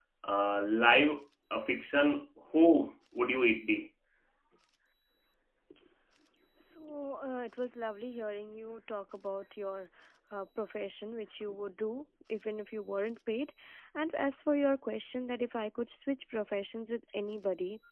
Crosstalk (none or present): none